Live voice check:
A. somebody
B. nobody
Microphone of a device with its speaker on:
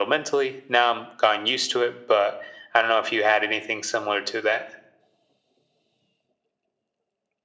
B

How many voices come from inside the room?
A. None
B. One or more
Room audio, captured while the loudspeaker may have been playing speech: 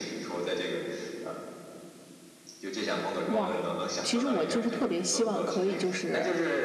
B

